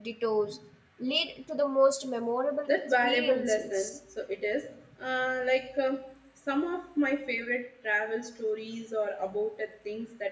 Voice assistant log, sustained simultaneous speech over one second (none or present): present